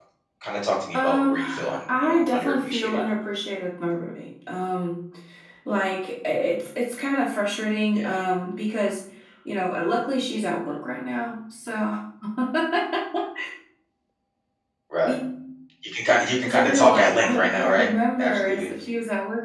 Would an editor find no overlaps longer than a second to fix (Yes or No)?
No